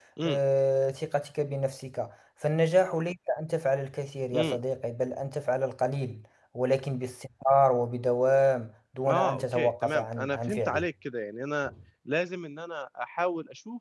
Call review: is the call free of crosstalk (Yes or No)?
No